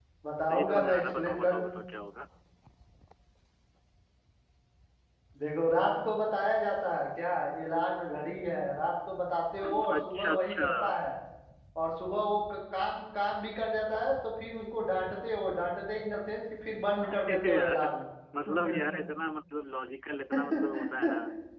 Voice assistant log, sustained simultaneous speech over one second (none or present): present